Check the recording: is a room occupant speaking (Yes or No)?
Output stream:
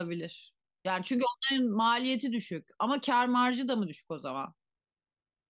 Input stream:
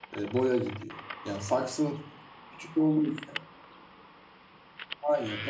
Yes